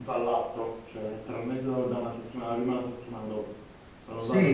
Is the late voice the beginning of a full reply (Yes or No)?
Yes